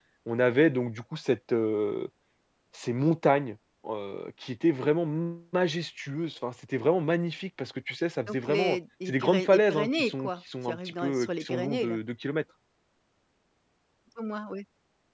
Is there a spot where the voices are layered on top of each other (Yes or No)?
Yes